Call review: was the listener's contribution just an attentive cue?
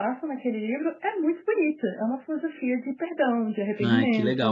No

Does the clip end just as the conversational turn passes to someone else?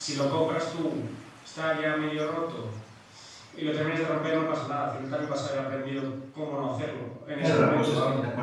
Yes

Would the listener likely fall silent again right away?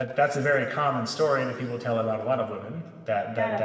Yes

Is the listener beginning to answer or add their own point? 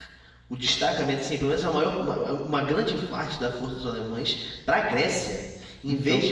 No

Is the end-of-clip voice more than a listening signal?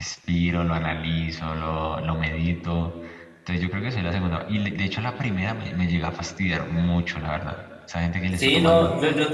Yes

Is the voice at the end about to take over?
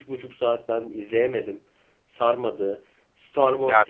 Yes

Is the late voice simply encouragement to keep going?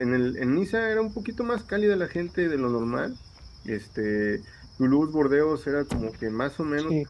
No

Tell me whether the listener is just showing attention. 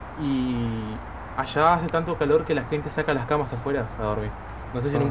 Yes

